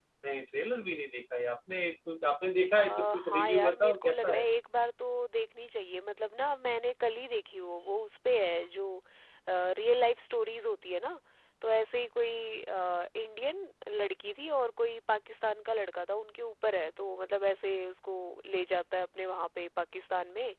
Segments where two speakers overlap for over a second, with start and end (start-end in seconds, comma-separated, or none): 2.8-4.4